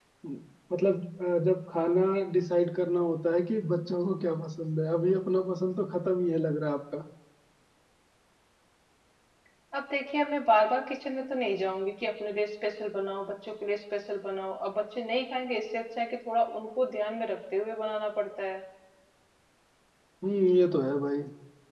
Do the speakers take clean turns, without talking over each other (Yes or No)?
Yes